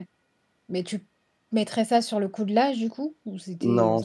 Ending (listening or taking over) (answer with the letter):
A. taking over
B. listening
A